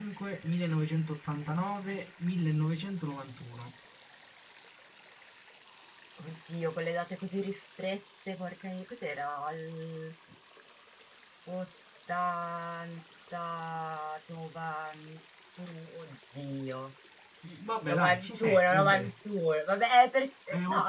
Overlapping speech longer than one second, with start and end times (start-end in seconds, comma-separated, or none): 17.8-19.1